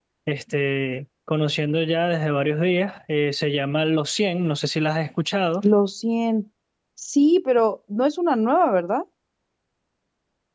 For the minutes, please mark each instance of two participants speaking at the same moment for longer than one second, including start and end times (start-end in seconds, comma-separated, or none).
none